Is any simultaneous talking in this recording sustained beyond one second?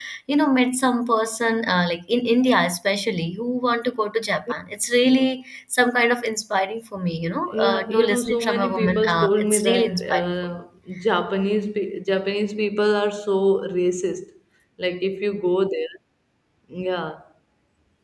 Yes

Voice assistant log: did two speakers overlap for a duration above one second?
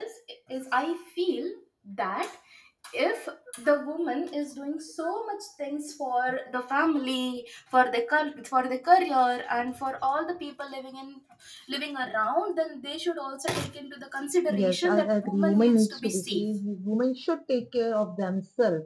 Yes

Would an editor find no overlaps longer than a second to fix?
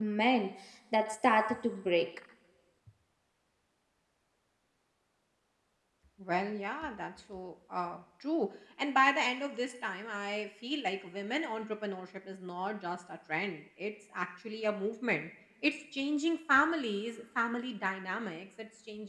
Yes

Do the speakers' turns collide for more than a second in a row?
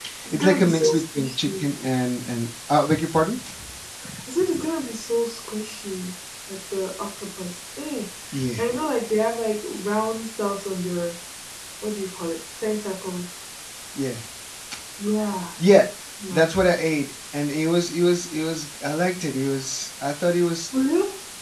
Yes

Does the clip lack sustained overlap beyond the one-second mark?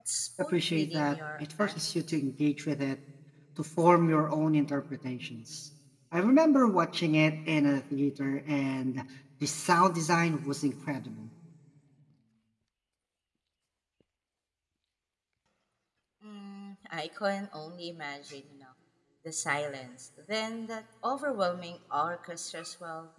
No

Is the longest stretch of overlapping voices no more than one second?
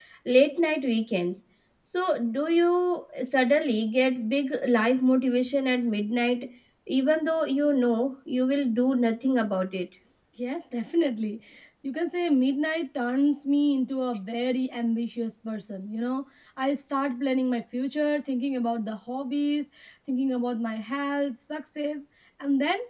Yes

